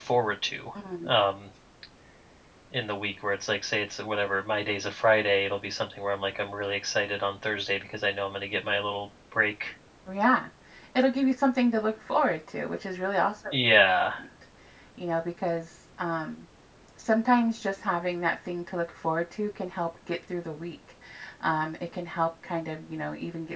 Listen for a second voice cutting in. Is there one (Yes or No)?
No